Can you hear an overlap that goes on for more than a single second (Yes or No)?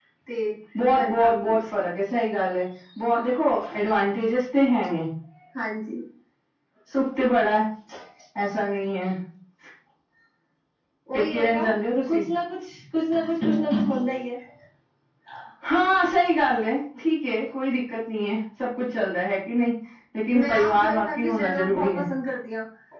Yes